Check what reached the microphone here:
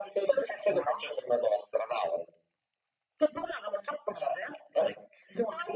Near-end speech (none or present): none